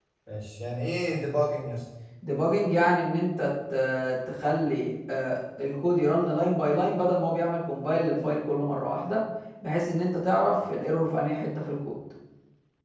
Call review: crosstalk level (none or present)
none